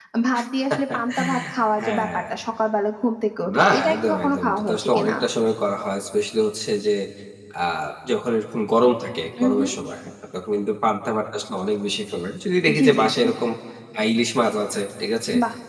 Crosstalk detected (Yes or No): Yes